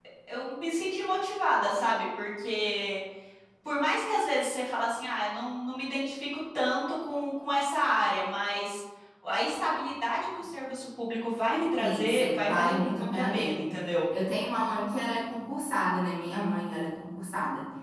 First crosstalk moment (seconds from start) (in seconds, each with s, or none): 11.8 s